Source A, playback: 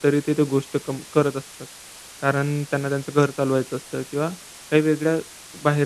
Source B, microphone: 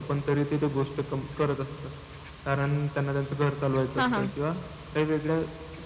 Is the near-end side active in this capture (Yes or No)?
Yes